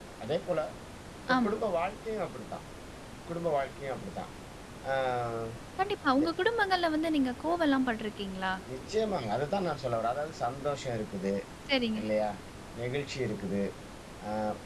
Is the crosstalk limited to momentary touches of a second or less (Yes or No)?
Yes